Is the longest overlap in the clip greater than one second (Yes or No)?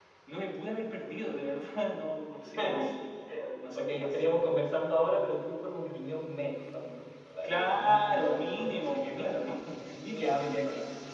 Yes